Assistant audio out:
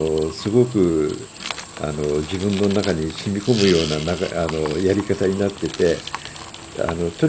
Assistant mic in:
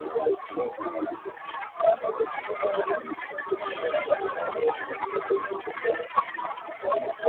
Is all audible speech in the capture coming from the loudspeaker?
Yes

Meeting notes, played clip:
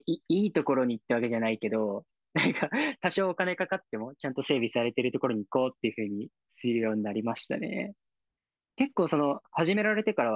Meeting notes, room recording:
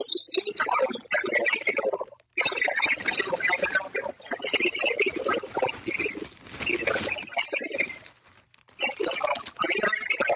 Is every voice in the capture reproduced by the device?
Yes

